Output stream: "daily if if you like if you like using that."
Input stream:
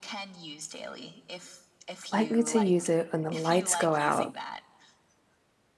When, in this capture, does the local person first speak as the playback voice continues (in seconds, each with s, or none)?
2.1 s